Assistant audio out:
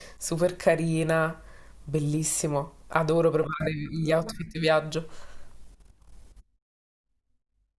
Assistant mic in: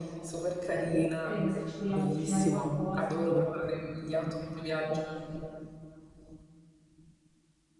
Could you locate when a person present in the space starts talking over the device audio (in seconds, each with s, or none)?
1.2 s